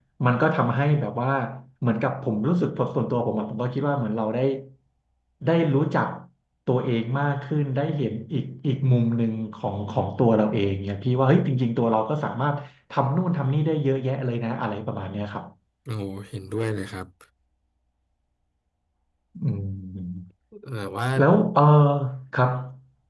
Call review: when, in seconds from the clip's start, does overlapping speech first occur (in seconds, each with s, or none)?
none